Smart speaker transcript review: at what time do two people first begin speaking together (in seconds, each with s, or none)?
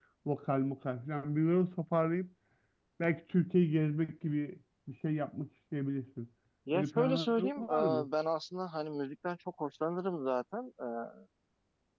6.7 s